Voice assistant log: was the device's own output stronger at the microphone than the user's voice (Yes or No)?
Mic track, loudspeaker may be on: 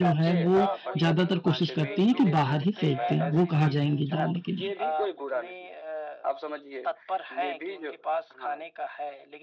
No